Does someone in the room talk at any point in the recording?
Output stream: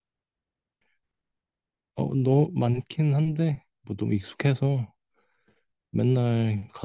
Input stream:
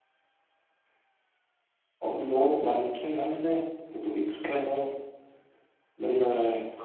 Yes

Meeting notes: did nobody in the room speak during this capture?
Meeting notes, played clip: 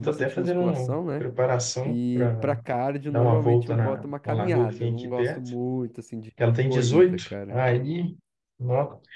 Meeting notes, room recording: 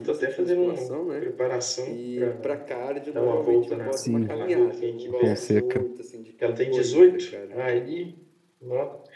No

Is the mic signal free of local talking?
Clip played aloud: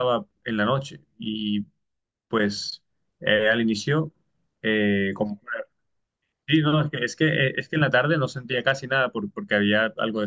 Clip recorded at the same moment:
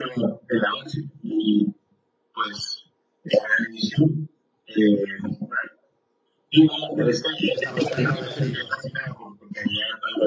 No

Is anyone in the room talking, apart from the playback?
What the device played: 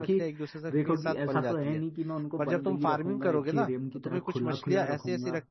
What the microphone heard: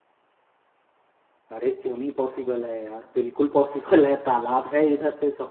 Yes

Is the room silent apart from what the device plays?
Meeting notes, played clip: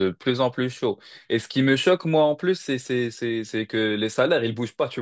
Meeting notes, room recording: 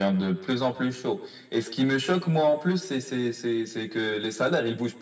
Yes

